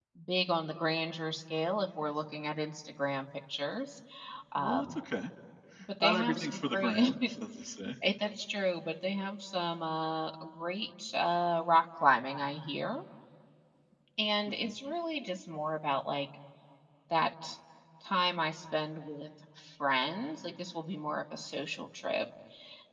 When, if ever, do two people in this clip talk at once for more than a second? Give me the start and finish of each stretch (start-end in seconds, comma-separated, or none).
6.0-7.3